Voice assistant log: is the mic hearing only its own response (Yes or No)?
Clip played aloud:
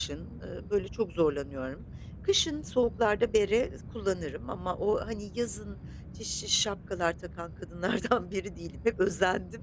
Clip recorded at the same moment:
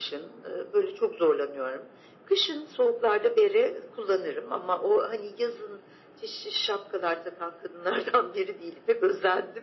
Yes